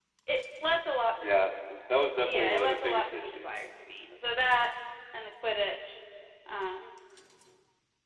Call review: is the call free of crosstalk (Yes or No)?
No